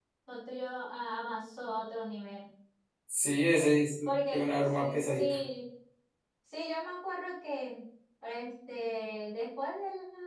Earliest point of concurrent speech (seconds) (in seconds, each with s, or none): 4.0 s